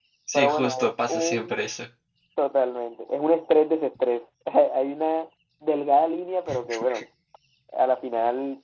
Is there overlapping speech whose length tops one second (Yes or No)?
Yes